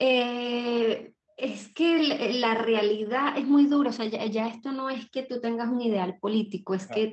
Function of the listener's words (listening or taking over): listening